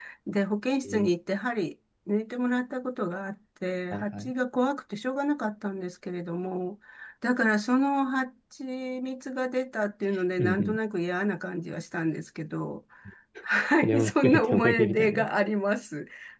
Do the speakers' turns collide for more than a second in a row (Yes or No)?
Yes